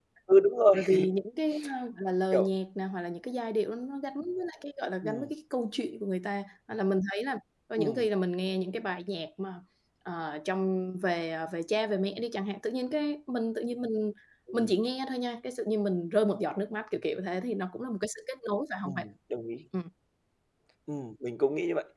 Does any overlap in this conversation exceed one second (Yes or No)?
No